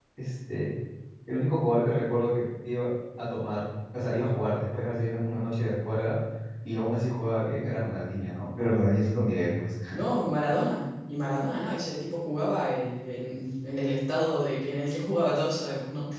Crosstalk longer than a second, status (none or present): none